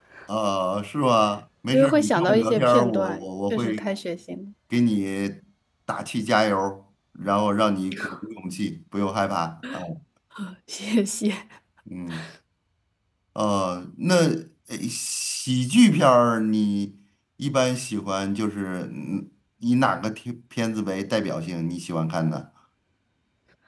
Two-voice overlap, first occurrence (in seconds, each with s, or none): 1.7 s